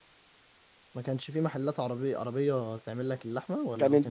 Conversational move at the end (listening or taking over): taking over